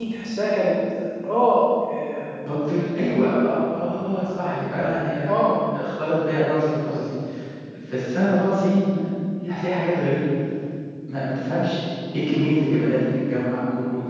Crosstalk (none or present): none